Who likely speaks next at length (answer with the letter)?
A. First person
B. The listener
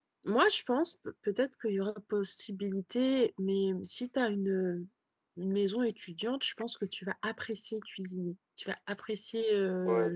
B